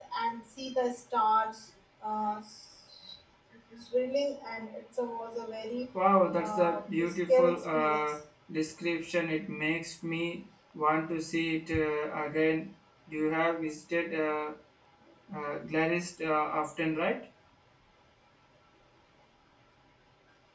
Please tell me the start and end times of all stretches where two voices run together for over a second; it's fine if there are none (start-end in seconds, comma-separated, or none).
6.4-8.1